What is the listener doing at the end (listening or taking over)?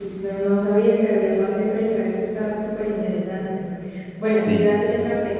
listening